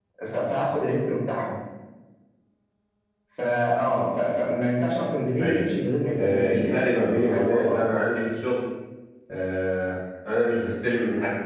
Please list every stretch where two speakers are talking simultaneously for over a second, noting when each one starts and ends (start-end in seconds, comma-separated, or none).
6.2-8.0